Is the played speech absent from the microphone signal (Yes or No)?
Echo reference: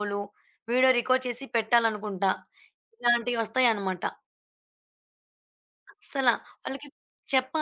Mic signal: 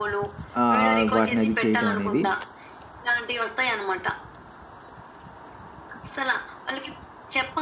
No